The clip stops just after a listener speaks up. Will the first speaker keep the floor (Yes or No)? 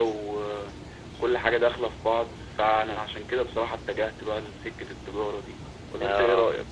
No